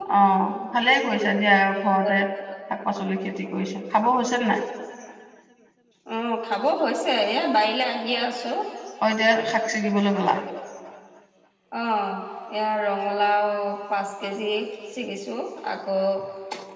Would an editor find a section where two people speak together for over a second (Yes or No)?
No